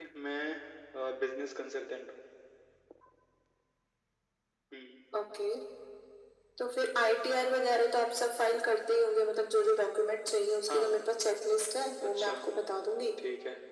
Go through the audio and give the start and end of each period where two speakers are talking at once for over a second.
none

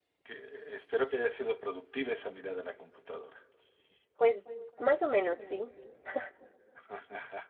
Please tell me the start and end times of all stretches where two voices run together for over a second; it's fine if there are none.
none

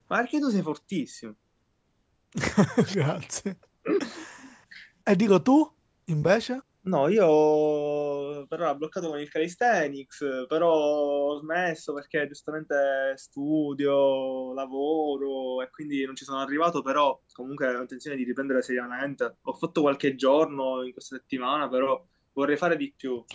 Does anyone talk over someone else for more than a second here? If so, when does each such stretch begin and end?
none

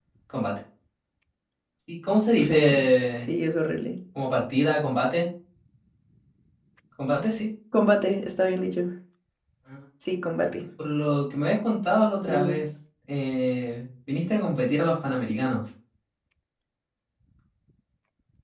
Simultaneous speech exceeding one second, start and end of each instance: none

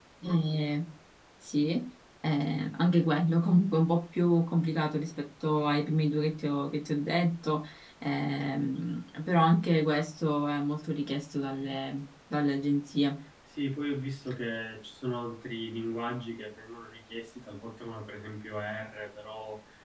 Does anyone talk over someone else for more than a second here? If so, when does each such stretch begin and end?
none

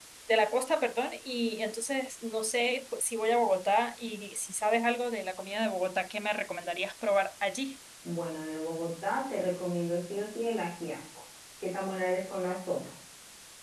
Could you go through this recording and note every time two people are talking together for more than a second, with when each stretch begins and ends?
none

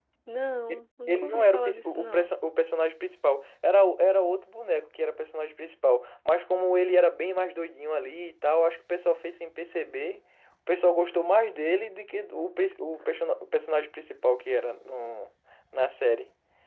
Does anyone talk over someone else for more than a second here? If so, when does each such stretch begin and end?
1.1-2.3

